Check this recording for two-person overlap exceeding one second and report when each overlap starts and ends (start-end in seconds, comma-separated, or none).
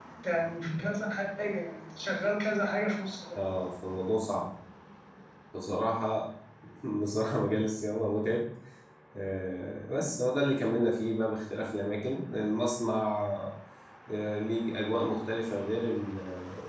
none